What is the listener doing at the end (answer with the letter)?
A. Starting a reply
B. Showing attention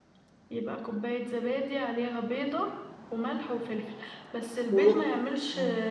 B